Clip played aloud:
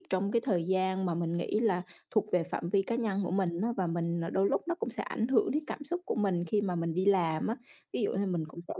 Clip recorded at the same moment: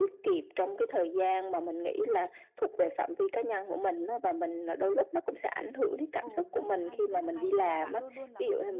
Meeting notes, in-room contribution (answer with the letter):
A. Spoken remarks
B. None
A